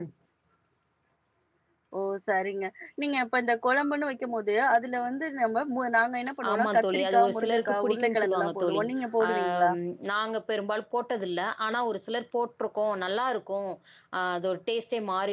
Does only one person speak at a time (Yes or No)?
No